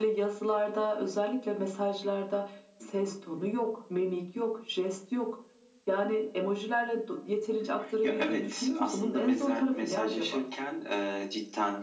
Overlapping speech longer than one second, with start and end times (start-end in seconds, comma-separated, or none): 8.0-10.4